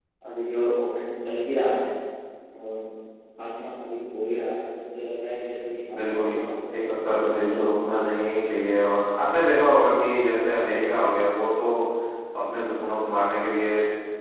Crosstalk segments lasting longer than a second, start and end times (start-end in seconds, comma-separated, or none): 6.8-8.0